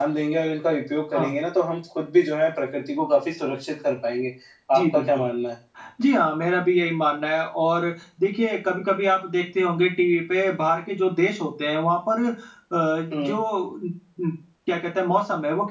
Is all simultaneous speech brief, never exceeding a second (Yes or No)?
Yes